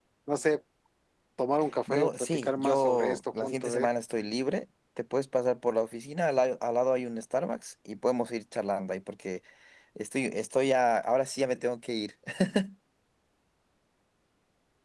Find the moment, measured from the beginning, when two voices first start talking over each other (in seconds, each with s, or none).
1.9 s